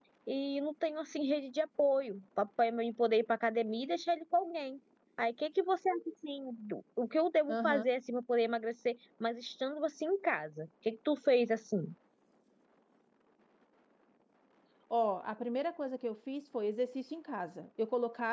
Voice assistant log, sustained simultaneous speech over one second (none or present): none